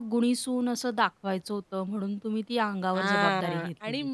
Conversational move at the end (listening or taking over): taking over